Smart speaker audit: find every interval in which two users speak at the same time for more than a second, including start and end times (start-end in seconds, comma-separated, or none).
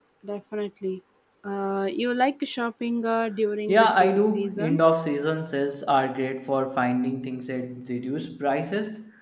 3.7-4.9